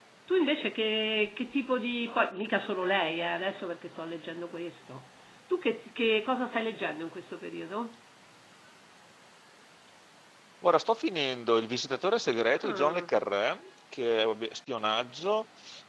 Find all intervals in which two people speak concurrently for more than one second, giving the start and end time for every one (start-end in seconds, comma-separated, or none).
none